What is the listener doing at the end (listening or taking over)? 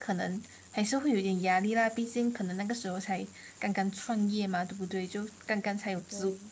listening